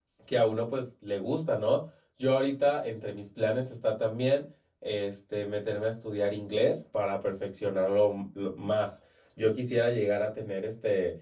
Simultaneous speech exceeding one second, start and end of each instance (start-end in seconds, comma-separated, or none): none